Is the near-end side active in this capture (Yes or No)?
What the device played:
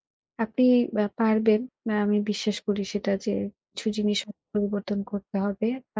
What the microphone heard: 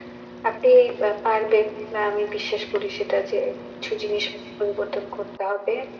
No